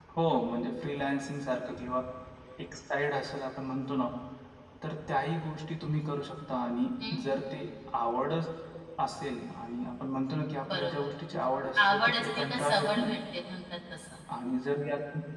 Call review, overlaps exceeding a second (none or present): present